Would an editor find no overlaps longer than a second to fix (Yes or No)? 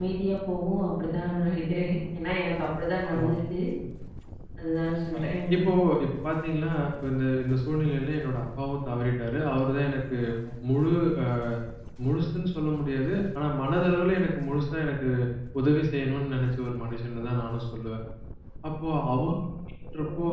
Yes